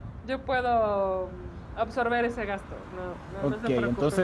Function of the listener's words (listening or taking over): taking over